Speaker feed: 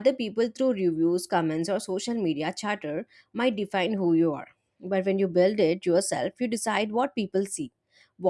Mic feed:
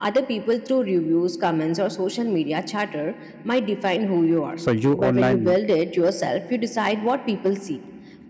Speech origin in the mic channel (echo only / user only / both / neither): both